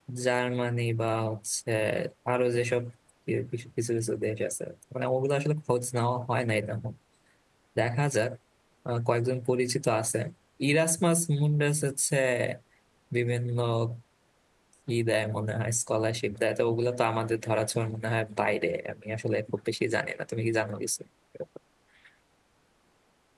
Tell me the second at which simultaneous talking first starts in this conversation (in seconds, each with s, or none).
none